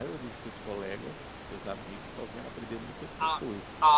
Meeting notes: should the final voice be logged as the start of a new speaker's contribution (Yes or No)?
Yes